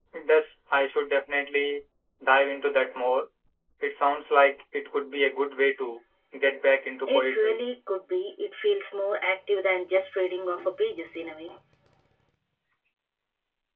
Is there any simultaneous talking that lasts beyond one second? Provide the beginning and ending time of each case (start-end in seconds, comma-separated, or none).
none